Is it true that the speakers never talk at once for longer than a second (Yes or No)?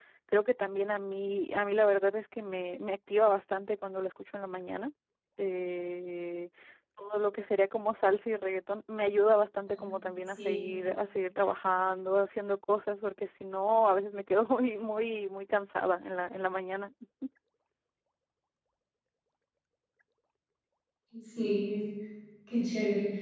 Yes